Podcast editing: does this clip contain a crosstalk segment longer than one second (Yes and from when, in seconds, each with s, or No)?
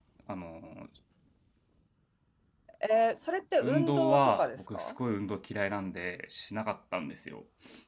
Yes, from 3.6 s